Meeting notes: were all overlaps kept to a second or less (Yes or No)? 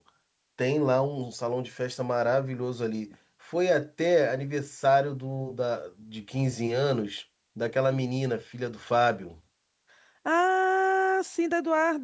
Yes